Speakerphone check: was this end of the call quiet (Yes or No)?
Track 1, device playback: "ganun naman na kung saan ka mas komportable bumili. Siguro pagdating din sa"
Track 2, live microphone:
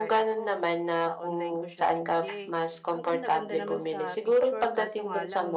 No